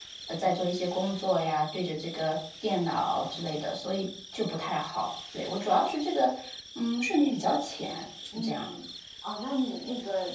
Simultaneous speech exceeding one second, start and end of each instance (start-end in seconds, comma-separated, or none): none